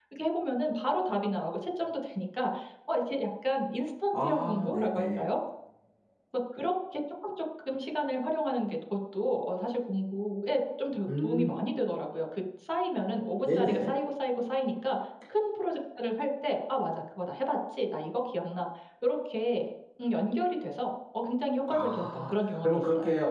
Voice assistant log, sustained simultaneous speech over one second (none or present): present